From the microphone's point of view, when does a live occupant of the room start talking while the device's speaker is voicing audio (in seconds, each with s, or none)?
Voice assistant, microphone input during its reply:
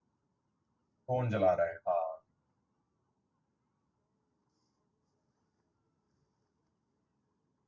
1.1 s